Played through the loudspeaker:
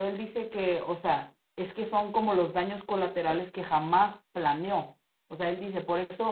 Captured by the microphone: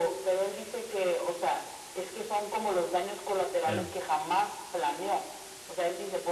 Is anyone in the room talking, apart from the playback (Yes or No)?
Yes